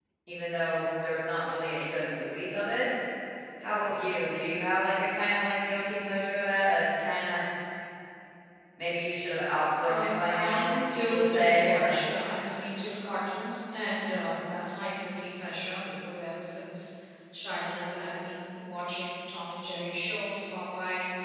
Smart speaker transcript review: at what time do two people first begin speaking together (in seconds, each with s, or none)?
9.8 s